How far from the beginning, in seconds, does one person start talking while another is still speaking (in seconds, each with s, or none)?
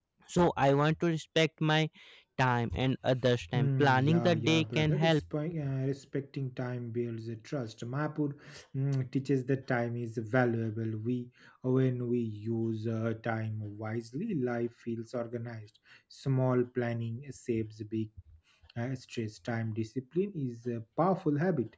3.5 s